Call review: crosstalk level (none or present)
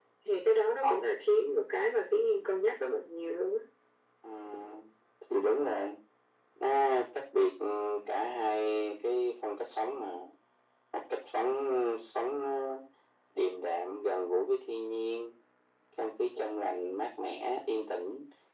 none